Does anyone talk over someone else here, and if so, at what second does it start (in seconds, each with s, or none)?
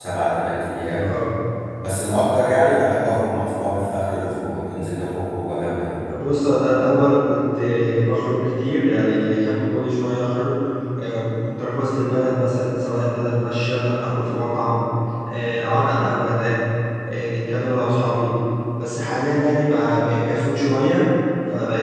none